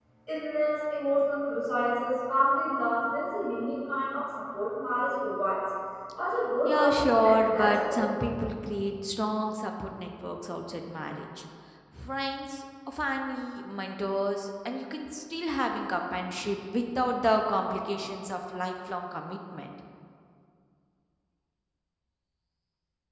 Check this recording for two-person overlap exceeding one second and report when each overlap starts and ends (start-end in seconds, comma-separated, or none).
6.6-8.1